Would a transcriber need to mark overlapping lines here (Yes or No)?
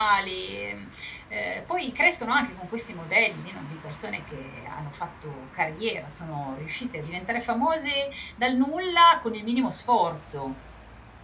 No